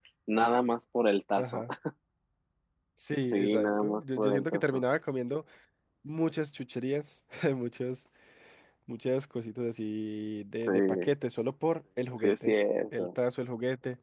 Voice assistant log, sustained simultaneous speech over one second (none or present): present